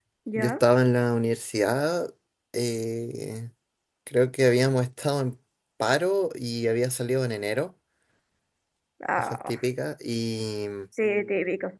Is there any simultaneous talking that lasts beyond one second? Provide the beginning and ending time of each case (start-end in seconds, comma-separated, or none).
none